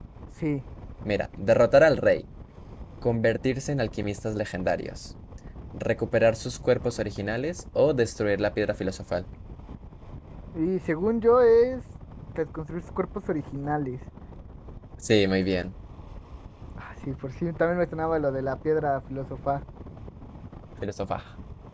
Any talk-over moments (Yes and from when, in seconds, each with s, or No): No